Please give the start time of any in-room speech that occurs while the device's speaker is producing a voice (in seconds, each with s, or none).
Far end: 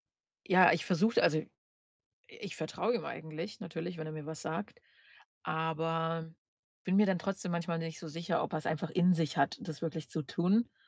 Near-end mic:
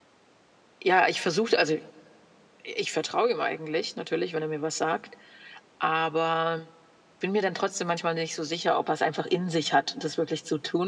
none